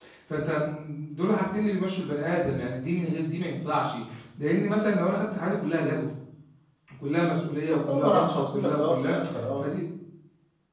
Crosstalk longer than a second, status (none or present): present